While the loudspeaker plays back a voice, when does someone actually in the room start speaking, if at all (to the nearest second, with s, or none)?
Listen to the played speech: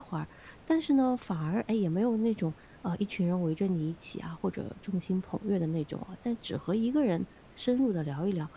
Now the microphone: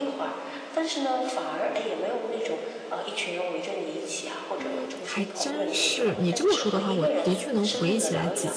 5 s